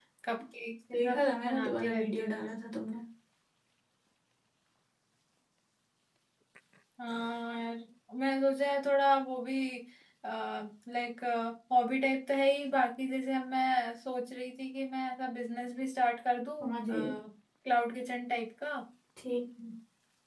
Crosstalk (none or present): present